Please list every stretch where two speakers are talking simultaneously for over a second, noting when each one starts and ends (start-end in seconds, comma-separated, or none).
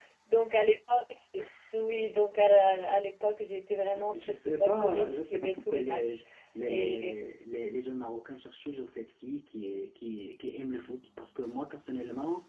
3.9-6.2